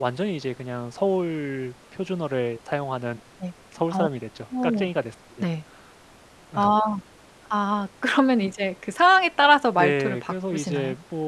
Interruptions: present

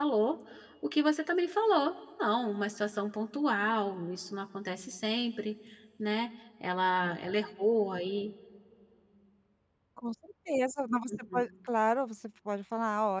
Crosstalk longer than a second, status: none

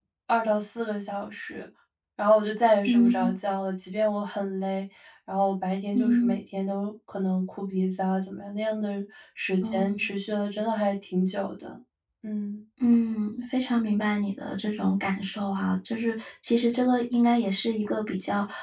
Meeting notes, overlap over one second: none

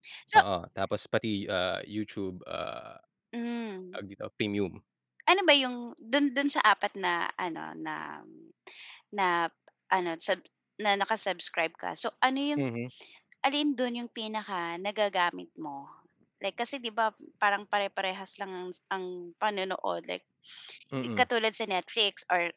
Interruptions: none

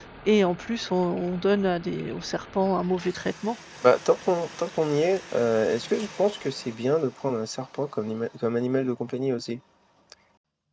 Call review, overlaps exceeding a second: none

